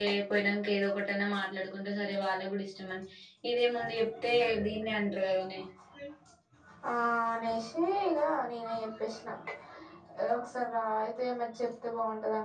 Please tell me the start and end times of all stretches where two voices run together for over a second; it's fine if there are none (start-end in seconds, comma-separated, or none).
none